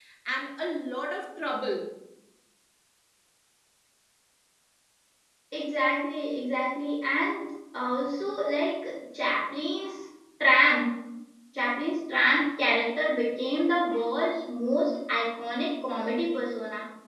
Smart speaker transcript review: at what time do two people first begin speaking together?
none

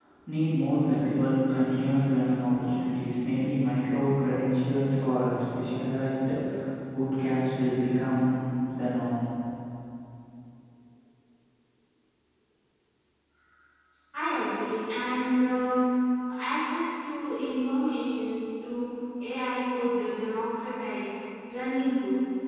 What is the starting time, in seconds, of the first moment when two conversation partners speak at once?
none

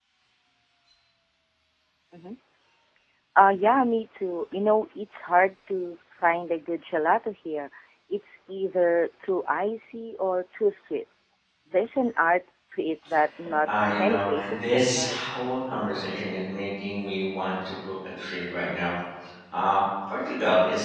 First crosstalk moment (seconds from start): 13.6 s

